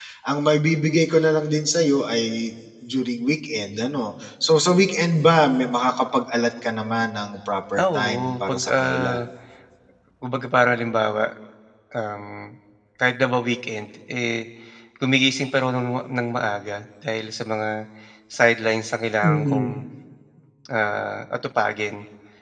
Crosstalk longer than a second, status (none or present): present